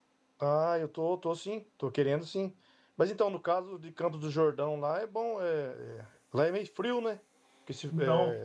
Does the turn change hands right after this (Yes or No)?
No